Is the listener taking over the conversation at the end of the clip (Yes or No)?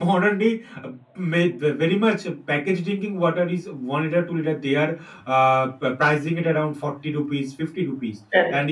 No